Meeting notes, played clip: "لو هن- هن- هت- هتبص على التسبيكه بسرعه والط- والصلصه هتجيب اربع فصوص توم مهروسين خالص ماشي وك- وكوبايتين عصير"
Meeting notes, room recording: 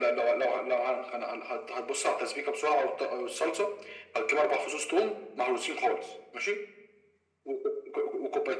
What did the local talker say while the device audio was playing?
none

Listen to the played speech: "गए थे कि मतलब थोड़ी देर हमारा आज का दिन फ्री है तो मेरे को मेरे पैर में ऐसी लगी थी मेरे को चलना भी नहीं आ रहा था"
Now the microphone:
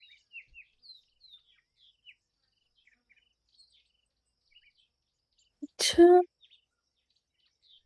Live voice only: अच्छा

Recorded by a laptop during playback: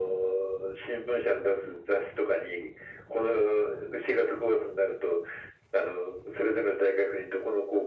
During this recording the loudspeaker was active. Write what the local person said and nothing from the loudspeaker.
none

